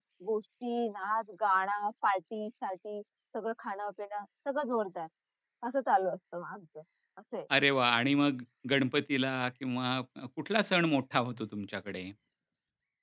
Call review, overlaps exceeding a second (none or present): none